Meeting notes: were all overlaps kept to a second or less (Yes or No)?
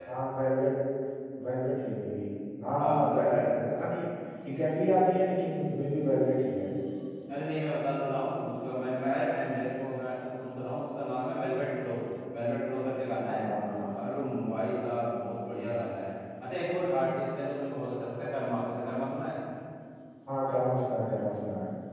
Yes